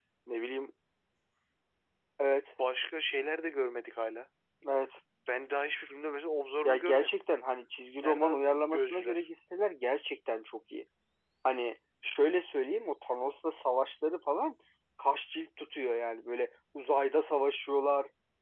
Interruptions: present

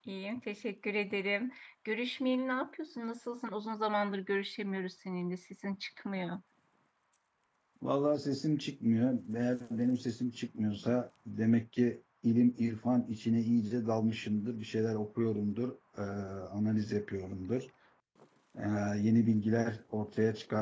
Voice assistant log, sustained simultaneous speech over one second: none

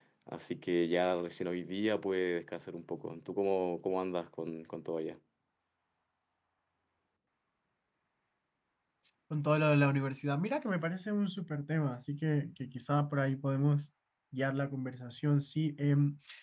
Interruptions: none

